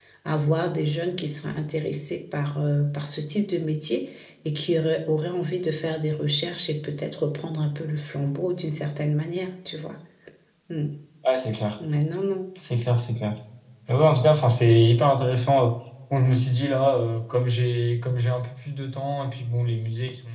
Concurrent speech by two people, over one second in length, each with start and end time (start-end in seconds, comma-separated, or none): none